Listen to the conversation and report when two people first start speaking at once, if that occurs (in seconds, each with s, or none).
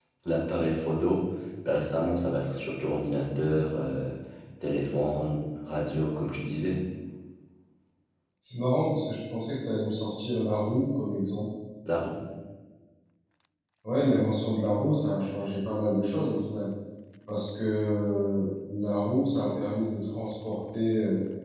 none